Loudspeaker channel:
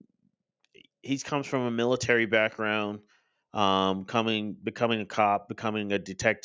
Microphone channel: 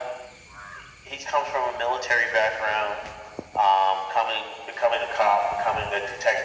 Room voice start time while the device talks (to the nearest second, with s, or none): none